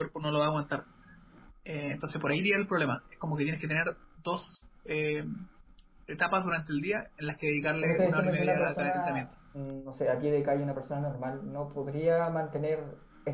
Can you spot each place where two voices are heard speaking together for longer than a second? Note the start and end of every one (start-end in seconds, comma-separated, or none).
7.8-9.2